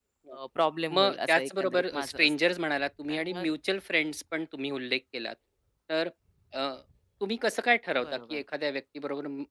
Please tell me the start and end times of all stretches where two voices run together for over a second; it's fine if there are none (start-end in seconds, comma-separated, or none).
0.9-2.3